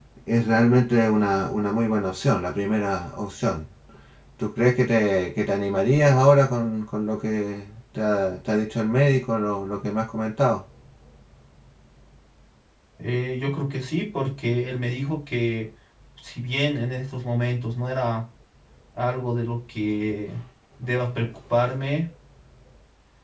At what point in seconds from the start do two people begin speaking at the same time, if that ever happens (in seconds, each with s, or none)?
none